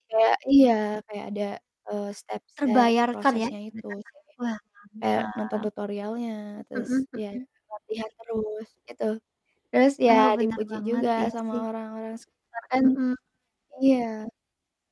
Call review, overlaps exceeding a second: present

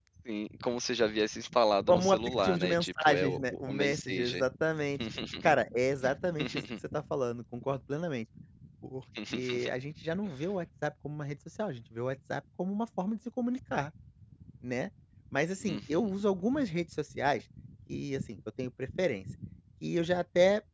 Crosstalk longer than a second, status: present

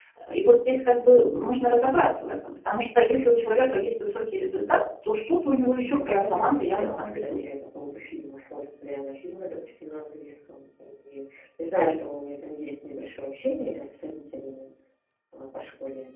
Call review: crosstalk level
present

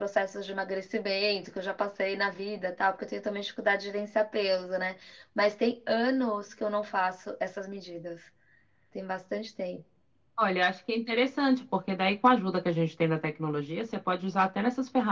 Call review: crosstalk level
none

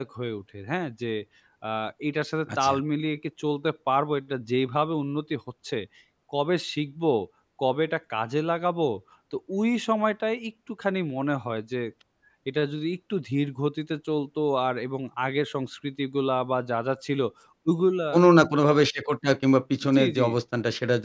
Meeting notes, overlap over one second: none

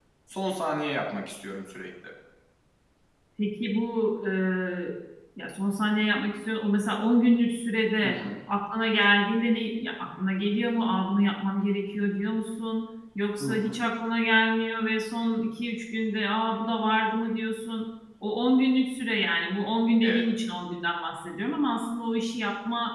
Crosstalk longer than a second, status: none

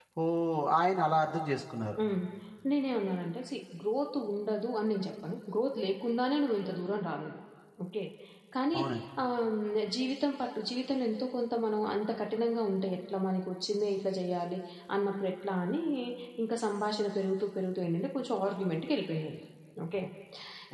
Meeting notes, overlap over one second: none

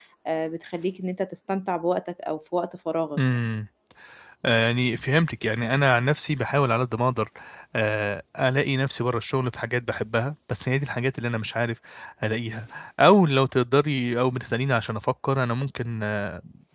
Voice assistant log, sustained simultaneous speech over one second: none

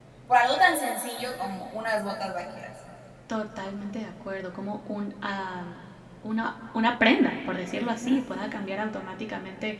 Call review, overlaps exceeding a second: none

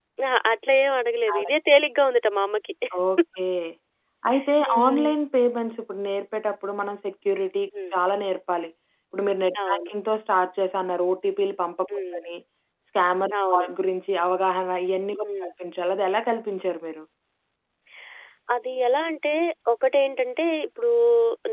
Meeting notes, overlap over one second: none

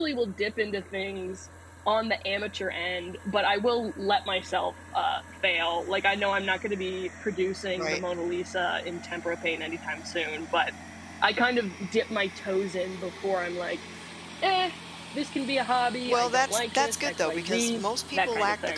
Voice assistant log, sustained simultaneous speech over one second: present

